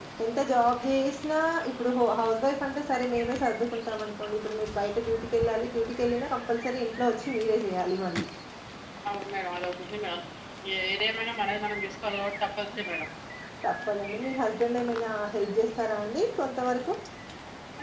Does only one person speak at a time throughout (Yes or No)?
Yes